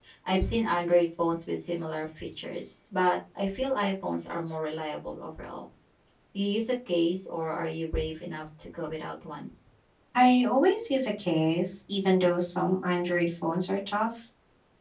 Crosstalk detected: No

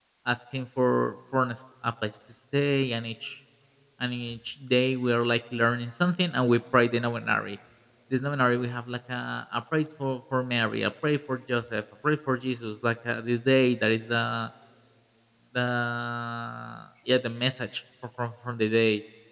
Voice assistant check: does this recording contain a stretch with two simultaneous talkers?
No

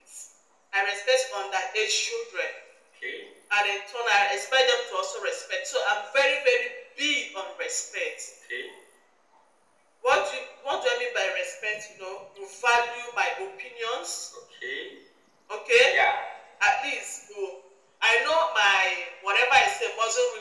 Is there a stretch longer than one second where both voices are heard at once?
No

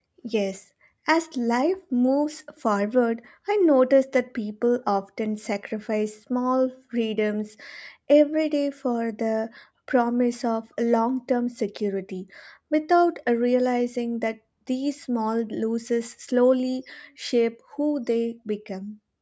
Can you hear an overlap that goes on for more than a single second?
No

